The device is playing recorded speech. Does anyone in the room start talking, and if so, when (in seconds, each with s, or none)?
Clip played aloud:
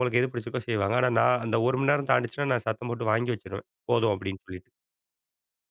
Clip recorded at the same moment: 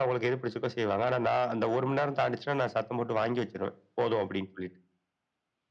none